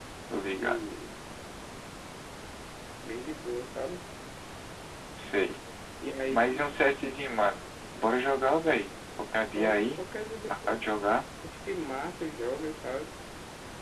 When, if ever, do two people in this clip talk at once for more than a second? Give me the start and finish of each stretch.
none

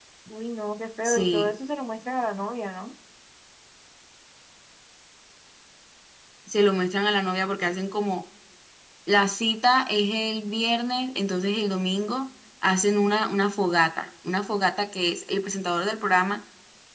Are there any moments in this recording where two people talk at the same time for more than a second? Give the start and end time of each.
none

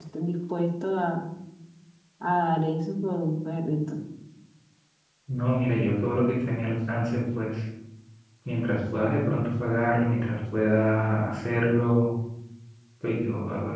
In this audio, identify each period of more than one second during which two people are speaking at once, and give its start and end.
none

